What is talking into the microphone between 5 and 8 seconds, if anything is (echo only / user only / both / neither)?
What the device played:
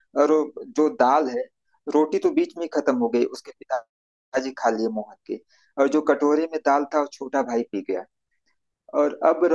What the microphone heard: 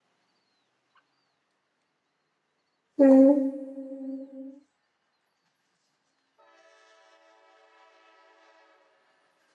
neither